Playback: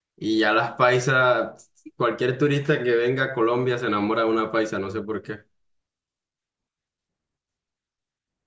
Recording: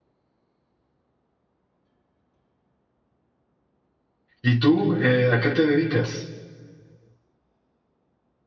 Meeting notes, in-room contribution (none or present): present